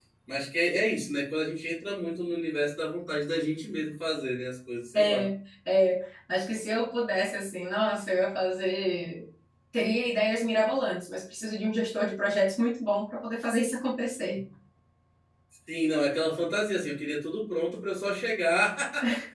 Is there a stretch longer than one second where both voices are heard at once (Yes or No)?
No